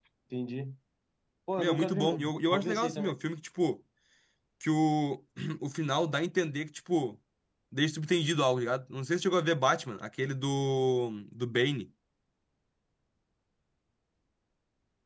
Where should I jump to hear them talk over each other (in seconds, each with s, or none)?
1.6 s